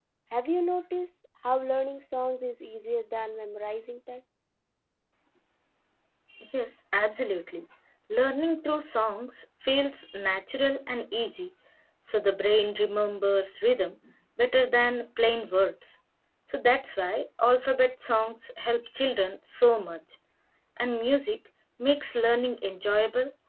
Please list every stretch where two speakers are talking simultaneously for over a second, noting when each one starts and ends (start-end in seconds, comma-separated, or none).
none